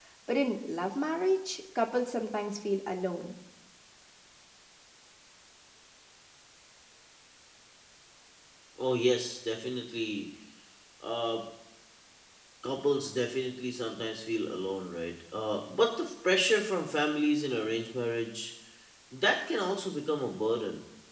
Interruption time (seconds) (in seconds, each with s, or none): none